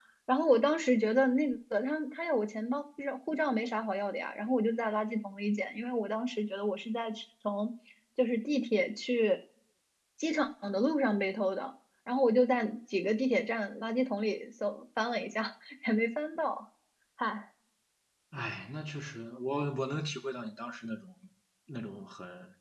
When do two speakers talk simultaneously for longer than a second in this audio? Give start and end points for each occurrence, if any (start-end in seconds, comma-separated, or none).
none